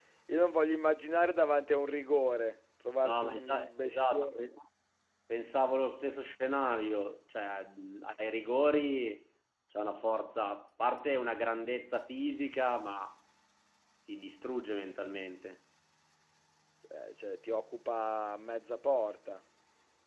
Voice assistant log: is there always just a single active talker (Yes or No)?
No